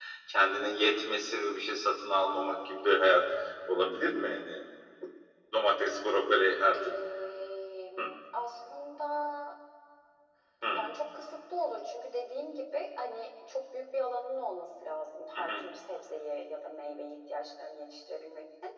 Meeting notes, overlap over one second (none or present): none